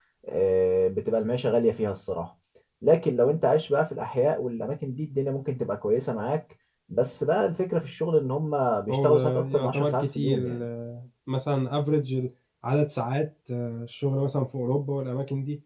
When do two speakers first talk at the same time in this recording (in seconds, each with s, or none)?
8.9 s